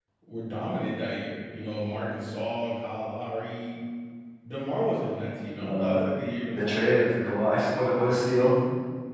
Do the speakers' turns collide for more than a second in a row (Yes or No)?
No